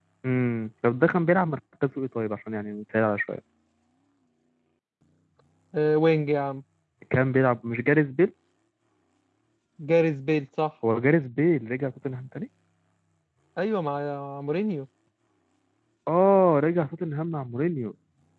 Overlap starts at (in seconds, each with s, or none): none